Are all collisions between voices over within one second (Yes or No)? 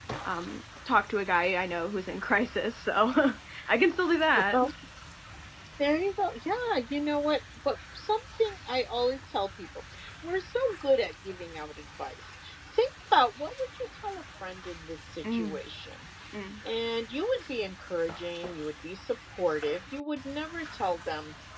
Yes